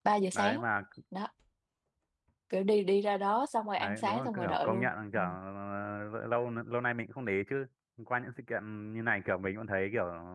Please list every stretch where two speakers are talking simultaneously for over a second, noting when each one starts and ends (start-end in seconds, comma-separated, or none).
3.8-5.2